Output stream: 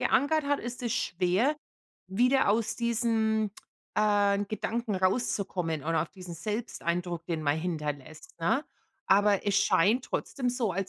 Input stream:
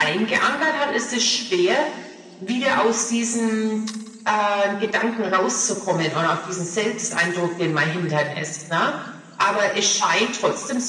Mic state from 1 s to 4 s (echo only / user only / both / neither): echo only